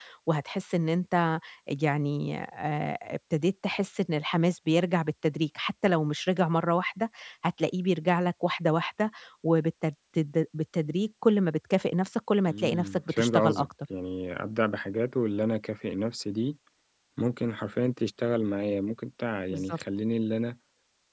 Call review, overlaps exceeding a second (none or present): present